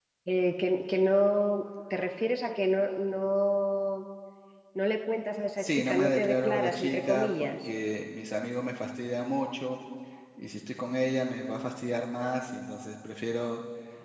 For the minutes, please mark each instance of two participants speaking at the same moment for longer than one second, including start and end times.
5.6-7.7

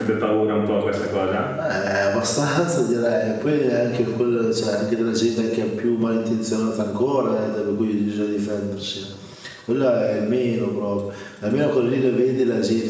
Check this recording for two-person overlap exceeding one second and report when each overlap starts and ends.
none

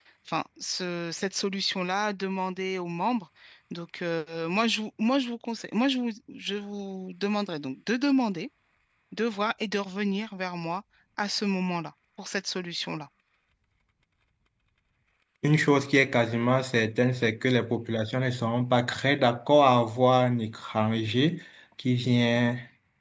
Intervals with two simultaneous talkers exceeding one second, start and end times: none

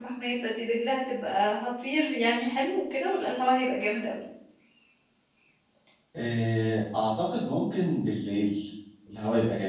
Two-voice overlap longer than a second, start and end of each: none

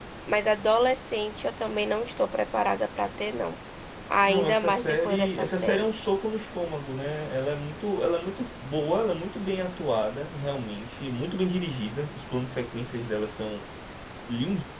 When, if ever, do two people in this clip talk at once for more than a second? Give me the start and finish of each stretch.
4.3-5.9

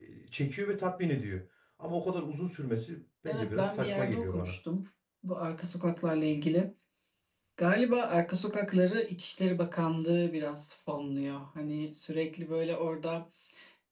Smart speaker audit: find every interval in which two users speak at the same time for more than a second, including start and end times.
3.3-4.5

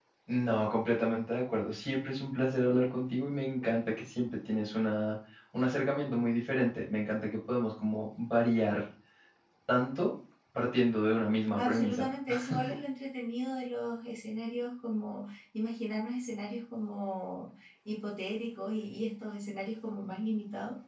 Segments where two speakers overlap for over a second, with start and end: none

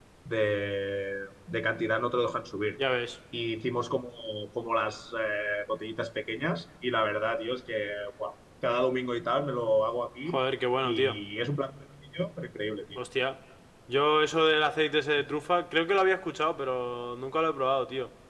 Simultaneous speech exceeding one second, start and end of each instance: none

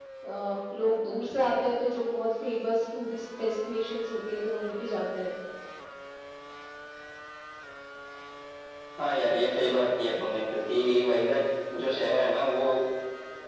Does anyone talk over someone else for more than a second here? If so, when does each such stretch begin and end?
none

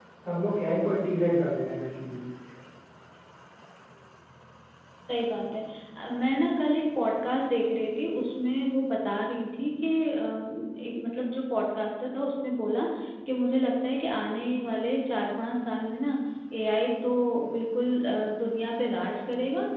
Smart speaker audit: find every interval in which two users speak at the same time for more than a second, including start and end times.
none

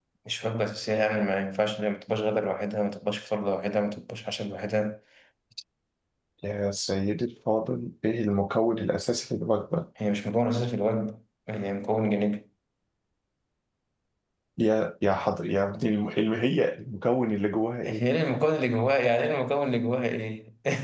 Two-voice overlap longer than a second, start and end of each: none

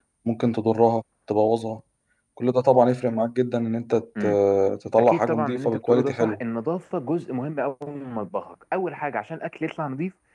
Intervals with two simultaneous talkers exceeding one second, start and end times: 5.0-6.4

